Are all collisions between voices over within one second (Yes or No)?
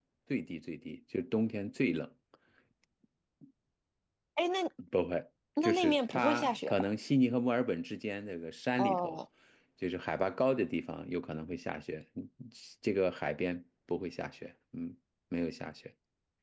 No